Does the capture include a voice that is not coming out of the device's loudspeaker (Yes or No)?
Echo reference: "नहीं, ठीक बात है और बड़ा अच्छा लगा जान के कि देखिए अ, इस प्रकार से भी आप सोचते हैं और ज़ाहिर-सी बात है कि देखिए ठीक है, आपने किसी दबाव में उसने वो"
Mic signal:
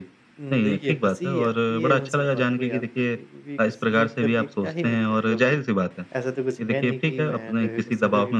Yes